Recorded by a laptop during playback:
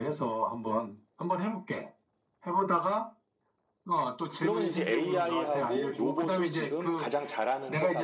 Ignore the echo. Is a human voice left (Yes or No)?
Yes